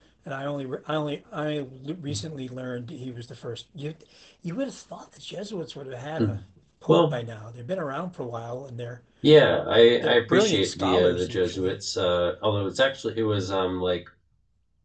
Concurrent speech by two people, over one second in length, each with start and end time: 10.0-11.8

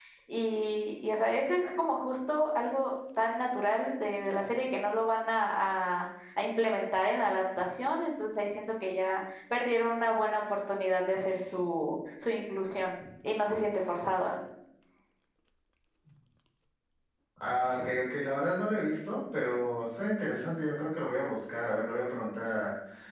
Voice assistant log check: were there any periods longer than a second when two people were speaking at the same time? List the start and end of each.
none

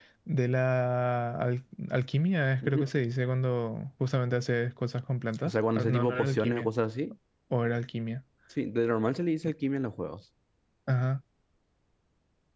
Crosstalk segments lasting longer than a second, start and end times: 5.5-6.7

